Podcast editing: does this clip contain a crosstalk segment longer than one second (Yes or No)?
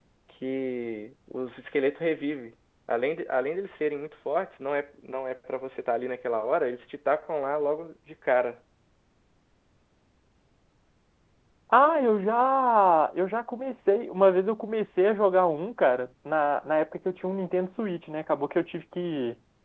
No